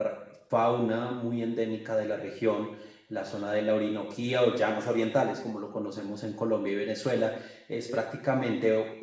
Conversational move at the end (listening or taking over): listening